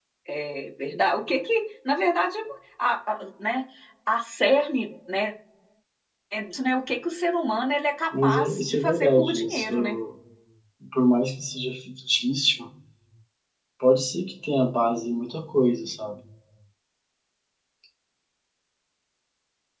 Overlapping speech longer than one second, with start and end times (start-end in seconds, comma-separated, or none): 8.2-10.0